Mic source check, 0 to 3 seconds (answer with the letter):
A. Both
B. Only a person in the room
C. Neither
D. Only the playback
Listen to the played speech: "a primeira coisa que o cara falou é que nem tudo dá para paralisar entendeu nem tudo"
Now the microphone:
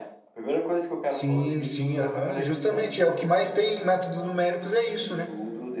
A